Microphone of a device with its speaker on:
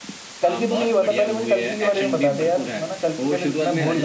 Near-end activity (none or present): present